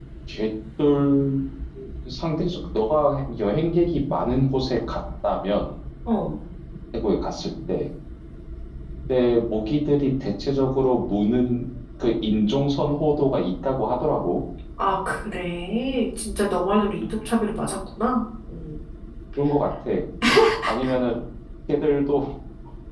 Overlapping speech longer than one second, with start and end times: none

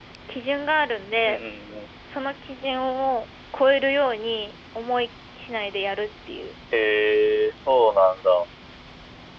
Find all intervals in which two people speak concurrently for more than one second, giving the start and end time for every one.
none

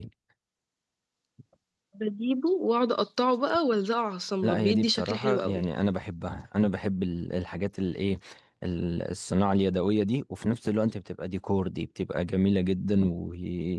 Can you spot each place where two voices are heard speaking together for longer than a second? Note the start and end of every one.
4.4-5.6

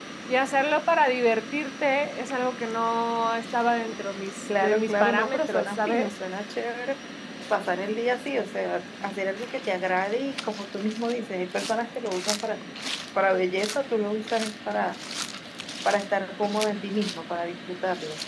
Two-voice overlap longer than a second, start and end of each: 4.6-6.1

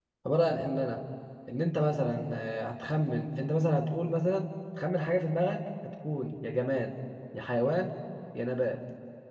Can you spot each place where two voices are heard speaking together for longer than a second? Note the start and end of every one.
none

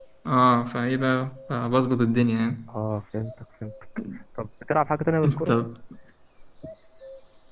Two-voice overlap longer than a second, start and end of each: none

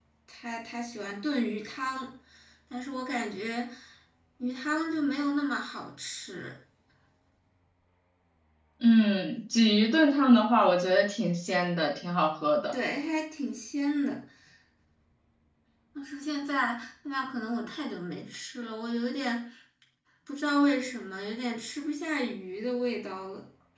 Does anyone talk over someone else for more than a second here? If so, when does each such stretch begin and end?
none

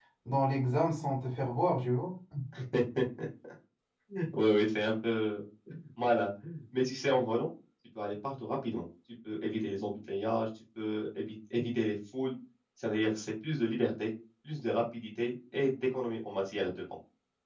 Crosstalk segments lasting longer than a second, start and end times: none

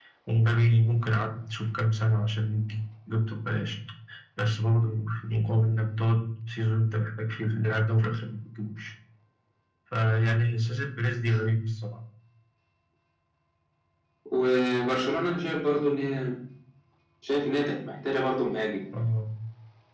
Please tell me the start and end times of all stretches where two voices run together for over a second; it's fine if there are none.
none

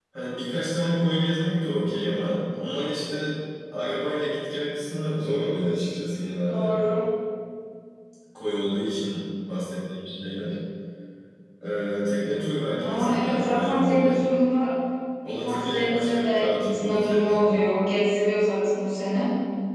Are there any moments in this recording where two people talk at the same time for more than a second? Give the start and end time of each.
12.8-14.2, 15.2-17.4

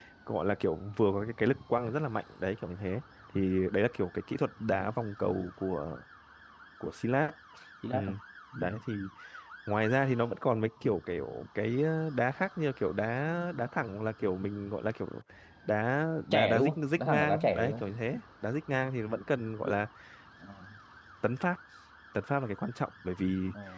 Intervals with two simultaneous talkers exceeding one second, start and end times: 16.3-17.8

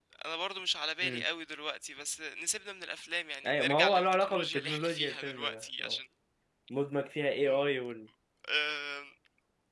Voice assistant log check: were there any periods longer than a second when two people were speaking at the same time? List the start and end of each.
3.5-6.0

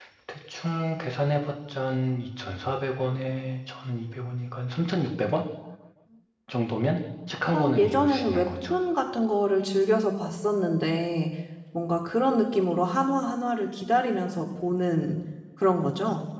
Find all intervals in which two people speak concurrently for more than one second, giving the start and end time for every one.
7.5-8.7

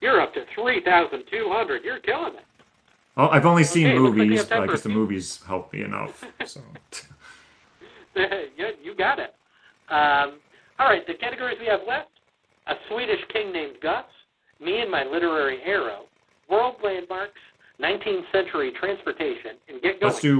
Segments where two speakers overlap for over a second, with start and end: 3.7-5.1

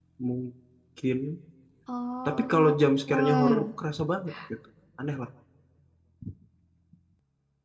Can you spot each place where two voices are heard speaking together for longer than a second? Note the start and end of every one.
2.2-3.6

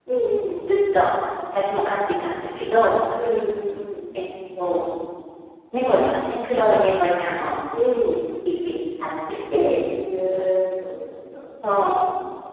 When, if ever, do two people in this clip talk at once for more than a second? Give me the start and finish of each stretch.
none

